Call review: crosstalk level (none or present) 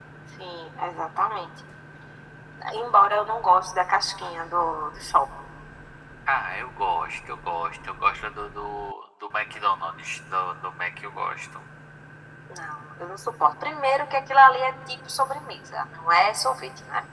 none